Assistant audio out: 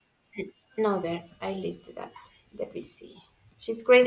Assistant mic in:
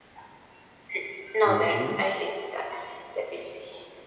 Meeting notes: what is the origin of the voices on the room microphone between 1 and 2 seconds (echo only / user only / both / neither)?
both